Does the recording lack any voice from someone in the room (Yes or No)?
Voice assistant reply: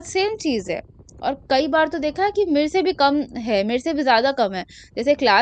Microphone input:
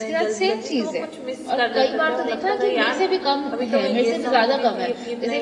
No